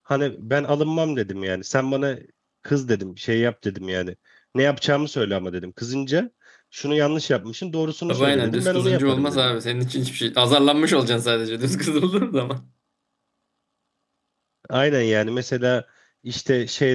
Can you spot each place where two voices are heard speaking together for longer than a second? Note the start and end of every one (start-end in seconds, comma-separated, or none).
8.1-9.5